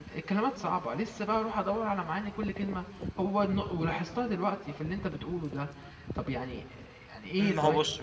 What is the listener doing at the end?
taking over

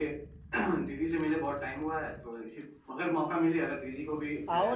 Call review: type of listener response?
taking over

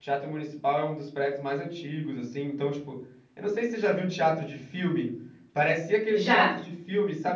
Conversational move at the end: listening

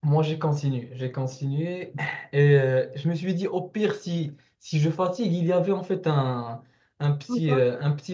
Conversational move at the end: listening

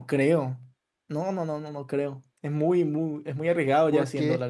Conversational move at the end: taking over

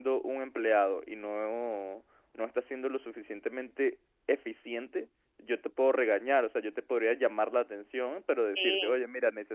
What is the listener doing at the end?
listening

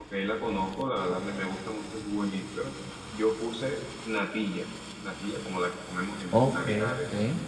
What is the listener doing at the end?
taking over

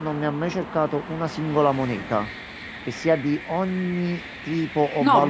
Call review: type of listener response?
taking over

